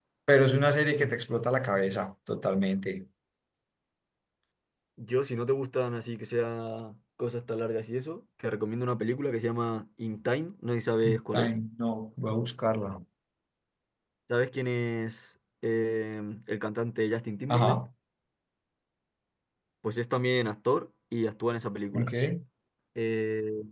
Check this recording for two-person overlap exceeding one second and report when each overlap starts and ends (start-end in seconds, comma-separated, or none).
none